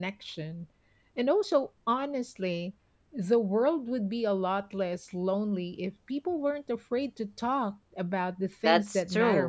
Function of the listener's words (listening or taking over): taking over